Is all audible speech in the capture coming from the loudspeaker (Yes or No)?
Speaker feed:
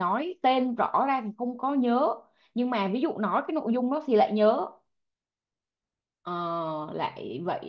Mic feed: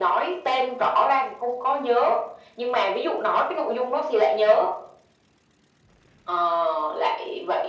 Yes